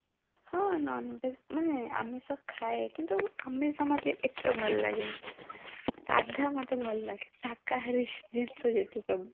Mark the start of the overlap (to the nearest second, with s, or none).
none